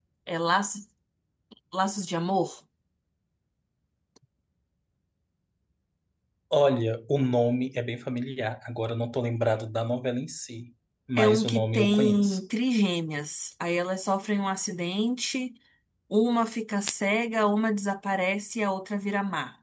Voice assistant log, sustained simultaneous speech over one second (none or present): present